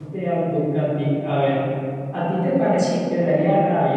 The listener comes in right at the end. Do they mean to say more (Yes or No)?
No